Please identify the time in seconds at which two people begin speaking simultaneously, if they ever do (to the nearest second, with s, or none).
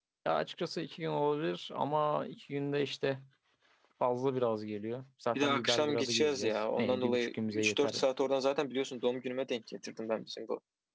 5 s